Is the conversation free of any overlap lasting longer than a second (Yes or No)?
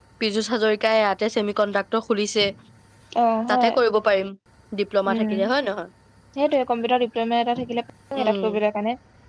Yes